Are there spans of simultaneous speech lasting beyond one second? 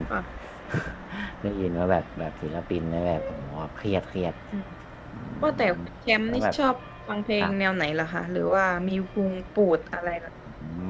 No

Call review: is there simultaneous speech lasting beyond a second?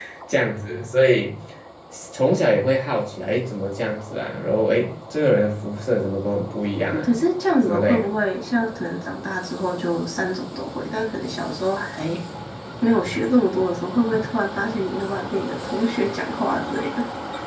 No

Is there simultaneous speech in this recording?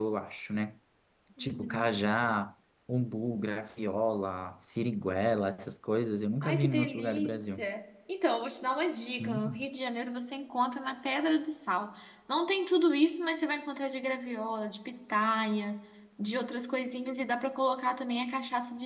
Yes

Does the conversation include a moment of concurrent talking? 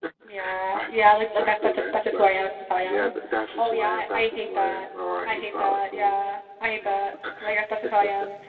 Yes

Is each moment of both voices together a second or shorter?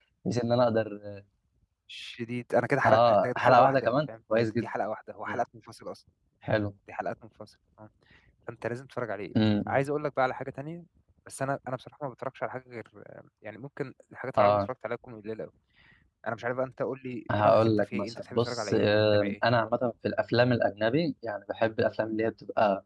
No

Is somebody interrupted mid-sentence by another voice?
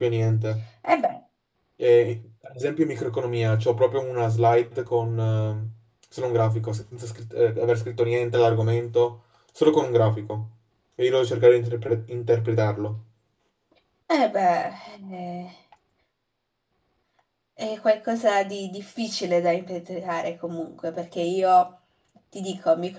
No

